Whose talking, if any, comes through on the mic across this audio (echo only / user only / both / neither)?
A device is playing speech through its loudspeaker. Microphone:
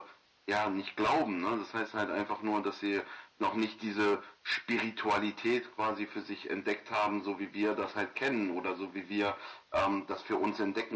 echo only